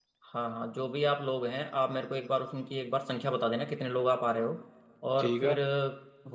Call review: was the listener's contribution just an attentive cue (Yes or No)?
Yes